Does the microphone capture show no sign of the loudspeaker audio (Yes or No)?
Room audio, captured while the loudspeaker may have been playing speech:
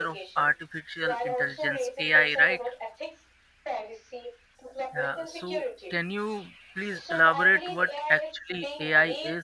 No